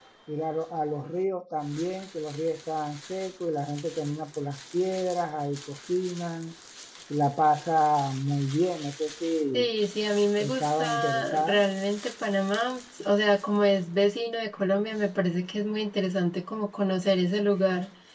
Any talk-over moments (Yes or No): Yes